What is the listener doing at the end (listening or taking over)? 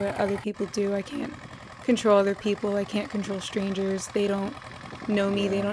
listening